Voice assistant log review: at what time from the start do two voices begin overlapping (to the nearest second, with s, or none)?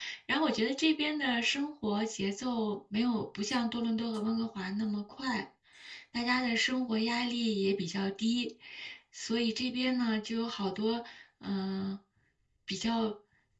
none